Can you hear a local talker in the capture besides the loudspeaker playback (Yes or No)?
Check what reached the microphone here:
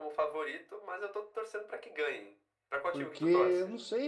Yes